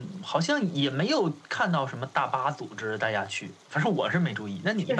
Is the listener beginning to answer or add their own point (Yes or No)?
Yes